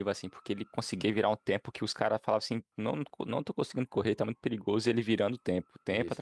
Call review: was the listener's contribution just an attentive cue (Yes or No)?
No